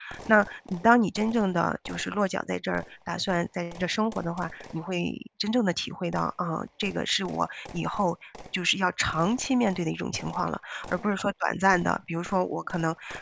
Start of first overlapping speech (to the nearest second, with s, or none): none